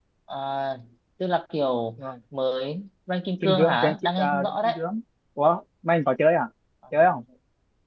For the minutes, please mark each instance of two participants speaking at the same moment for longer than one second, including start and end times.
3.4-4.8

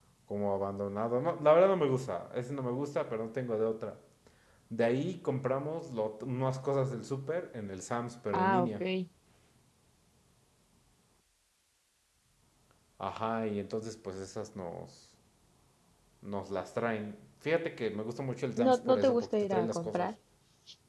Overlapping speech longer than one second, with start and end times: 18.6-20.1

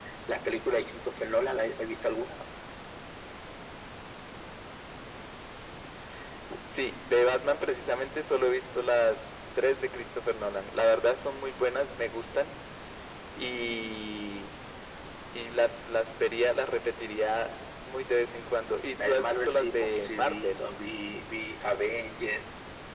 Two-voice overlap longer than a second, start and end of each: 19.0-20.6

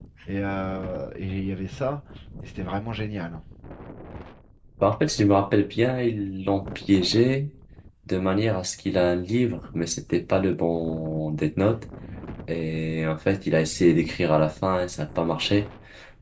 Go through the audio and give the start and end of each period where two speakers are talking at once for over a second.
none

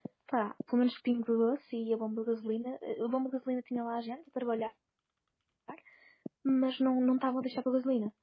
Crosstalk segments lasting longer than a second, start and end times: none

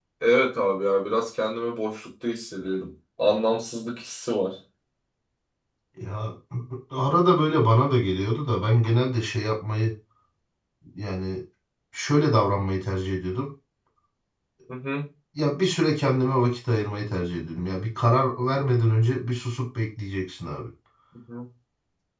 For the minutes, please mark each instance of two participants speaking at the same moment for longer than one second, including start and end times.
none

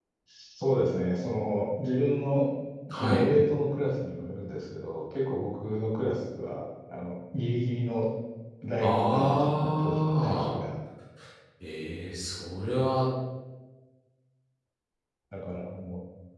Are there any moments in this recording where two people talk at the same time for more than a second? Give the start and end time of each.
8.8-10.5

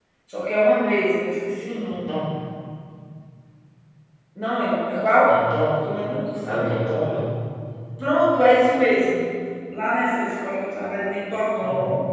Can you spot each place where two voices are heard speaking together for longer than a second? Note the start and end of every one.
none

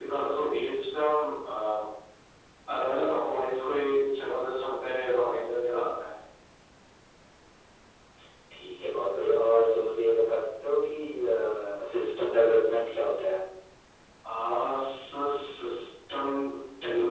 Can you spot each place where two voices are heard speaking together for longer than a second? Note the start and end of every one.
none

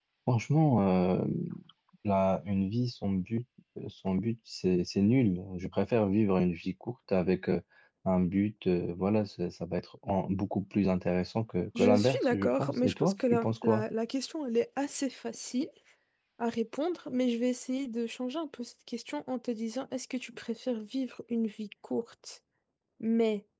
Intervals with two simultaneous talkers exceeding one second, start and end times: 11.8-13.8

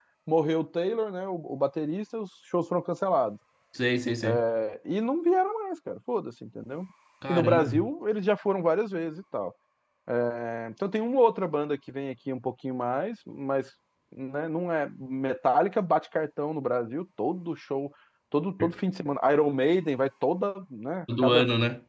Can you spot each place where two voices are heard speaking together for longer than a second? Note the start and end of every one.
none

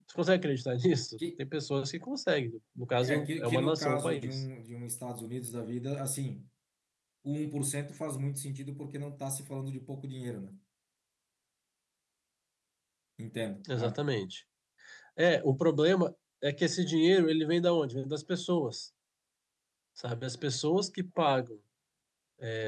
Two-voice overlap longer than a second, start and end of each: 3.0-4.4

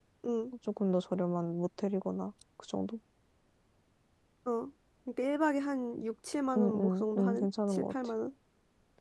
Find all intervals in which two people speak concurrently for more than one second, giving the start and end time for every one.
6.6-7.9

